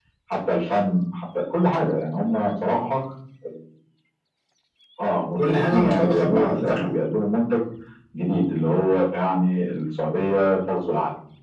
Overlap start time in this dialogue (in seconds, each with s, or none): 5.4 s